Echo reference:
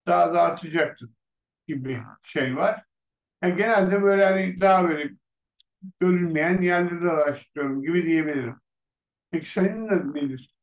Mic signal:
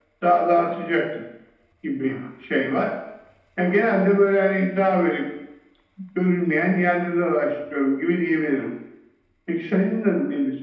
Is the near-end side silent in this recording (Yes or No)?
Yes